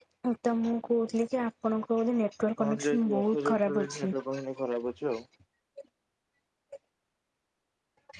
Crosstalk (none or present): present